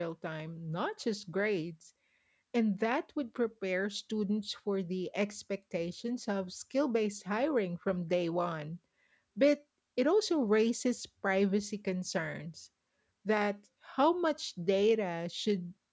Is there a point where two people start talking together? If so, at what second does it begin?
none

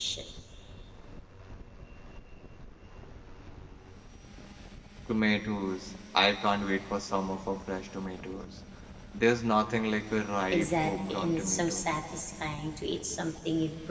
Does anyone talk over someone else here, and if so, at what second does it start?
10.5 s

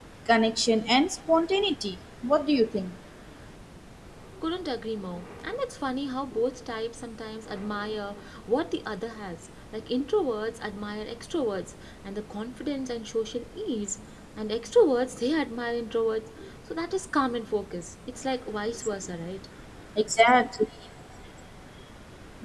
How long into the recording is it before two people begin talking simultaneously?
none

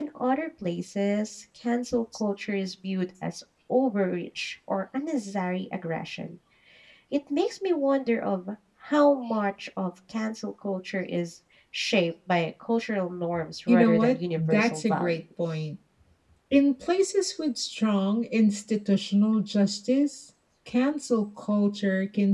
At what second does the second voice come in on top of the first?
13.7 s

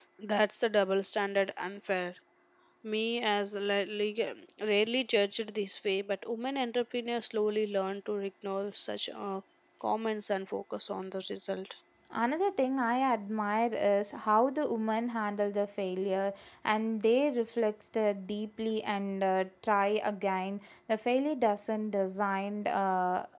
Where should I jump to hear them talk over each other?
none

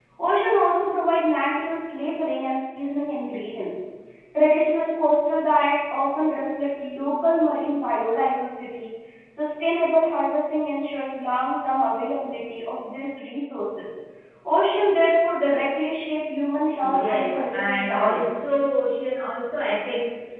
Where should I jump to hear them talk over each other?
16.8 s

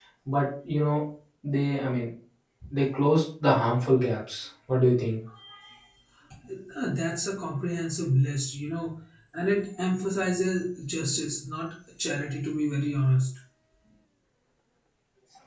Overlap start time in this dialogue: none

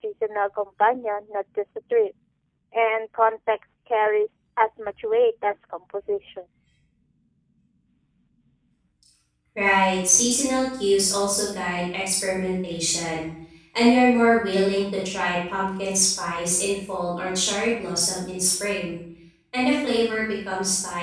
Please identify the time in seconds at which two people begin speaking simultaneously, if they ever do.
none

